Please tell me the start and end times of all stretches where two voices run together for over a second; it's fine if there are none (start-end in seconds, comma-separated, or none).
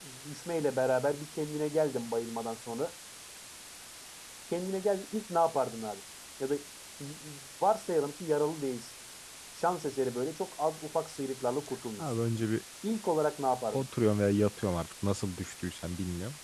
none